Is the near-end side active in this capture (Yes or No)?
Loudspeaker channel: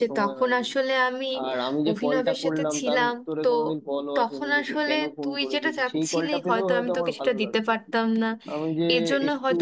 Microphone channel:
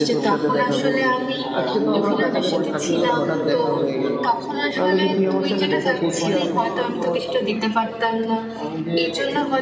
Yes